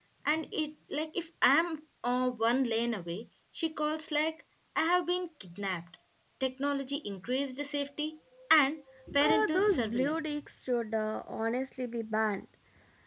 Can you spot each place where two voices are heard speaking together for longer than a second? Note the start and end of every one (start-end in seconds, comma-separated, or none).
9.2-10.4